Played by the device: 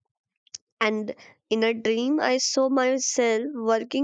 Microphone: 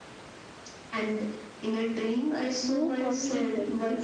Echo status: present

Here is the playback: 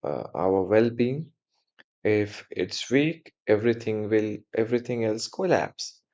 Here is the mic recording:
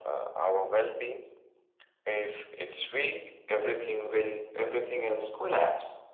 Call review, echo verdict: present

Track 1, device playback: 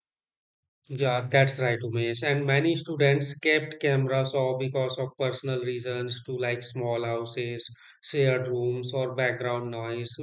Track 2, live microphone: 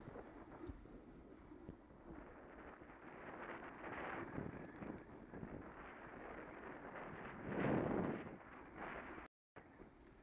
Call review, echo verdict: none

